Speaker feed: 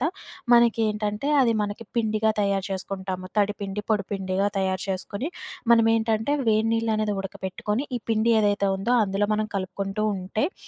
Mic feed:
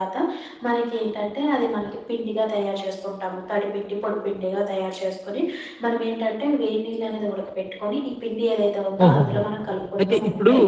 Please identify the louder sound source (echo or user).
user